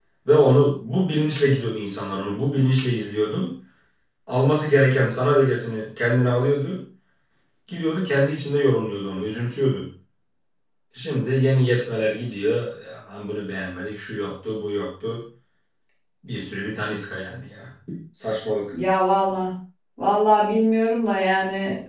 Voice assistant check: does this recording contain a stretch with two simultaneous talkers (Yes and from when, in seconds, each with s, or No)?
No